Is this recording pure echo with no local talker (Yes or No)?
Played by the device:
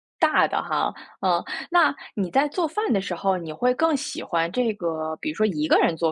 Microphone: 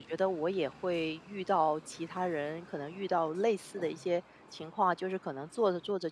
No